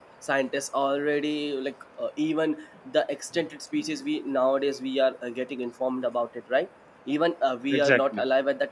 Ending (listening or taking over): listening